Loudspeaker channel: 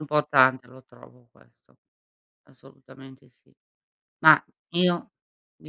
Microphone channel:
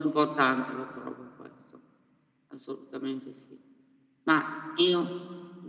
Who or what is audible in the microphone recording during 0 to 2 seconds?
echo only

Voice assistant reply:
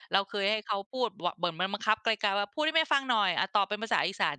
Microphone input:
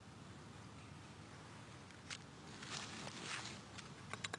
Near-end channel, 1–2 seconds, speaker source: neither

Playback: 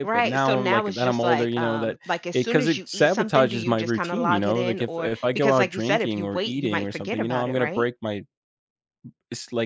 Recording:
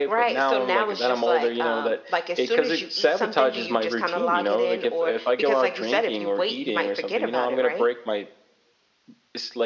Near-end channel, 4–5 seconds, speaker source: echo only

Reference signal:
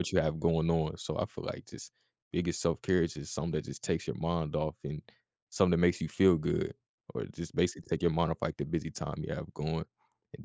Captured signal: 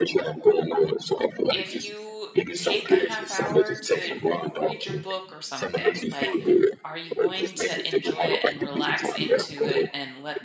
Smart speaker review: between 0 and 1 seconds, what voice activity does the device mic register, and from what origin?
echo only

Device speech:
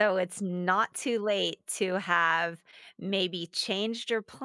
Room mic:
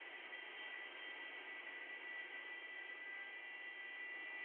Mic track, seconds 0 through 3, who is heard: neither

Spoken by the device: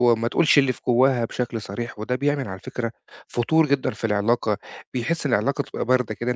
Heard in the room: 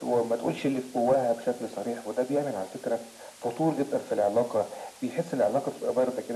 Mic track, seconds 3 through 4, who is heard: echo only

